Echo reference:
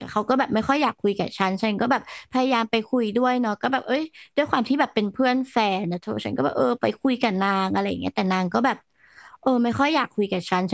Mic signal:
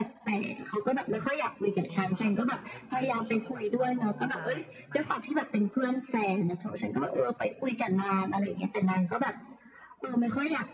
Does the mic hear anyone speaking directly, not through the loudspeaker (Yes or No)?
Yes